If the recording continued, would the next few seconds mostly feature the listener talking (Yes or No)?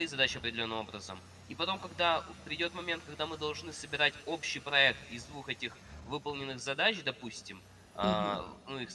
No